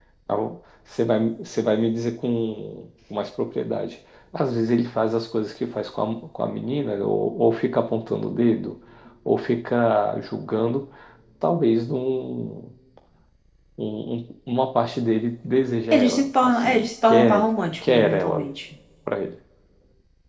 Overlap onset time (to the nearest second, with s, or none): 16 s